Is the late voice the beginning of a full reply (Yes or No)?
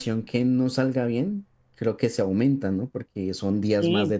No